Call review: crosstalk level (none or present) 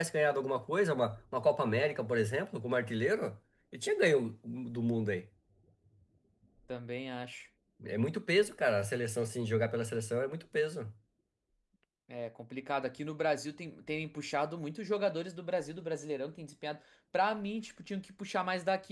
none